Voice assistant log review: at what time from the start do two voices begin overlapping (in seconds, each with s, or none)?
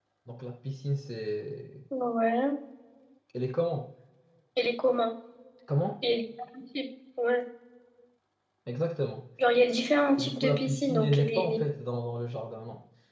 10.2 s